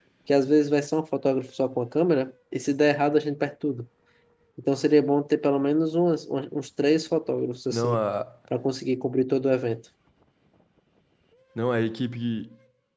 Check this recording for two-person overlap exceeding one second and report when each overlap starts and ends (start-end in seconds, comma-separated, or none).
none